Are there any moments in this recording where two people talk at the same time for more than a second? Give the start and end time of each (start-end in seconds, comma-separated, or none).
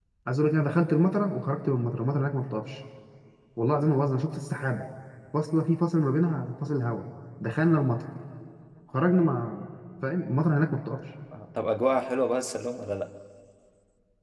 none